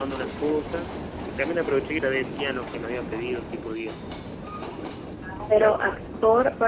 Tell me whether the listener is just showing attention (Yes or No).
No